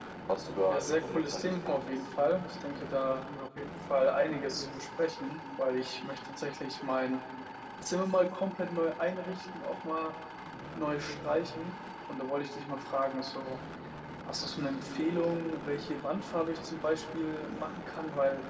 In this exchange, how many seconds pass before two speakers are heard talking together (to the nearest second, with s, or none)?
1 s